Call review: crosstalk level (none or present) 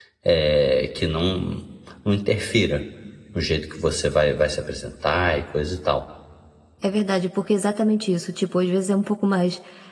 none